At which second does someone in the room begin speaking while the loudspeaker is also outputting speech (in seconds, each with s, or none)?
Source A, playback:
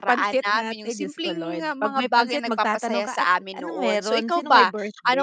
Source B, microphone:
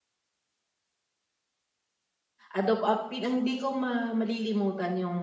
2.5 s